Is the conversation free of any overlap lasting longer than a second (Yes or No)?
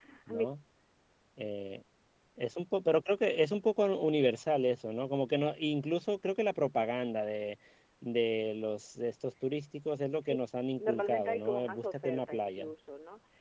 No